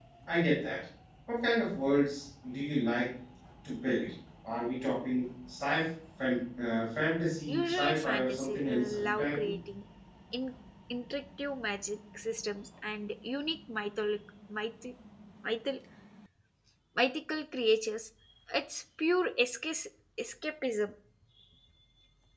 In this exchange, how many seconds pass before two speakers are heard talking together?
7.5 s

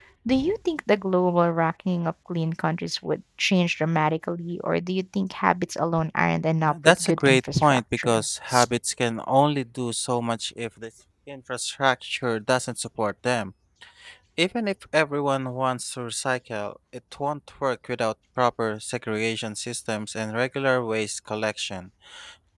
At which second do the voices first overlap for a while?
6.7 s

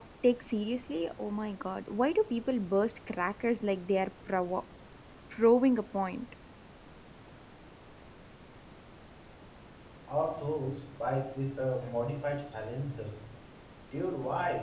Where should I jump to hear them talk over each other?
none

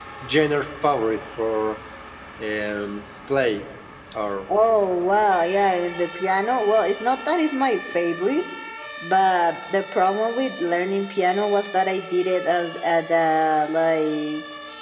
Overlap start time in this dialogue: none

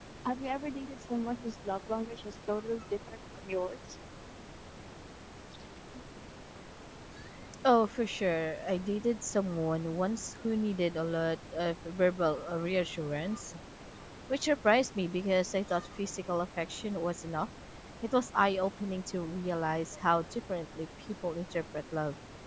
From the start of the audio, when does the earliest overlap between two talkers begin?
none

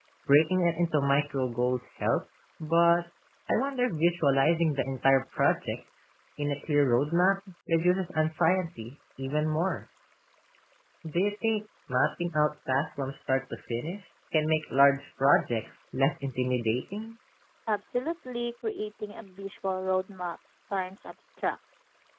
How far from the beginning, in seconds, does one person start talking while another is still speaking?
none

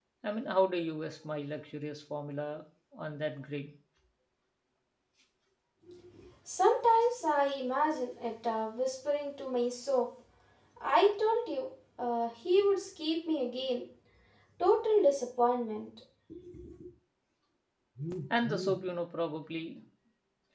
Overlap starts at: none

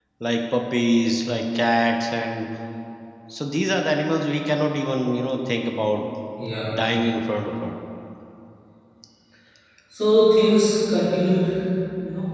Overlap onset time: none

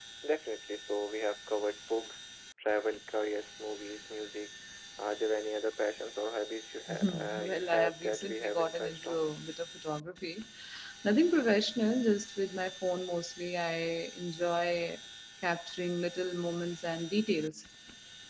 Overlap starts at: 6.9 s

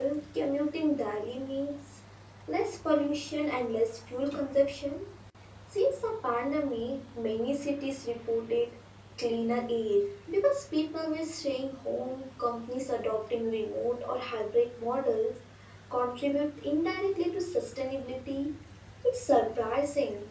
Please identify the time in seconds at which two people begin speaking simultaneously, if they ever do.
none

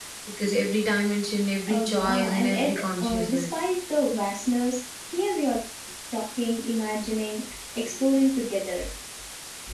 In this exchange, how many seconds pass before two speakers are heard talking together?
1.7 s

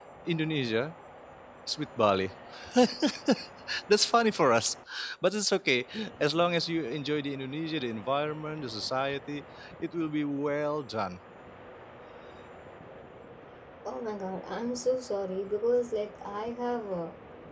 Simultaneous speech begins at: none

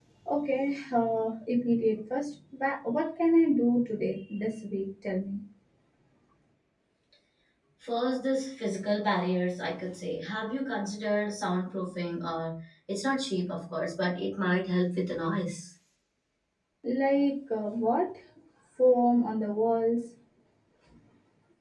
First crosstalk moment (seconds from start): none

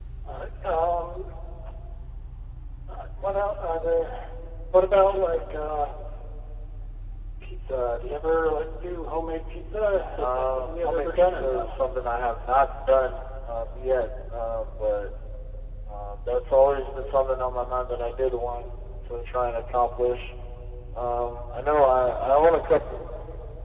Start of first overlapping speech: 10.2 s

